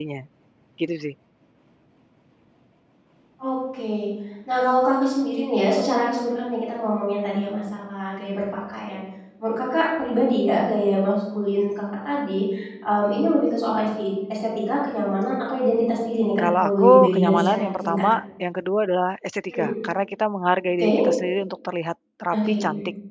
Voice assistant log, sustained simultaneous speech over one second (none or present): present